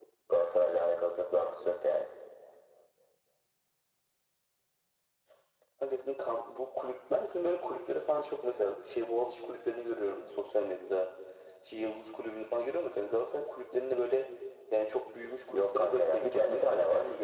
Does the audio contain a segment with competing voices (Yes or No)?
Yes